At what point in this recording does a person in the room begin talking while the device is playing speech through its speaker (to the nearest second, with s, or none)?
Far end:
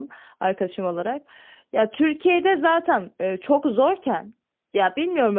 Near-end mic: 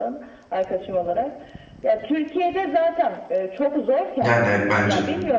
4 s